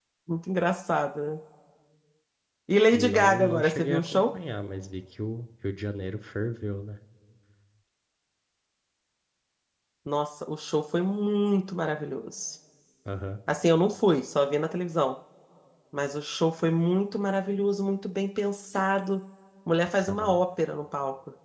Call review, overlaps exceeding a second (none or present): present